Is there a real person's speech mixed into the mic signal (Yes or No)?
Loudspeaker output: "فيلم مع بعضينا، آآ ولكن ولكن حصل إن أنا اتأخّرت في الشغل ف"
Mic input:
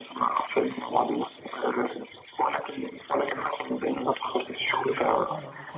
Yes